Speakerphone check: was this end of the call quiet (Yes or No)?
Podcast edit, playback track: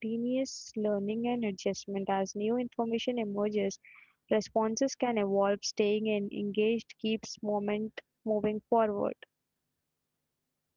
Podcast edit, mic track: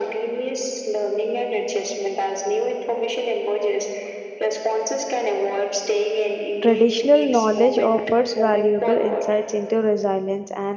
No